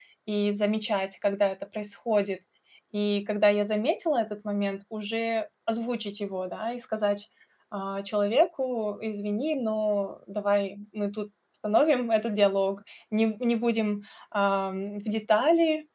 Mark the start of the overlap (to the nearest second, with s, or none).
none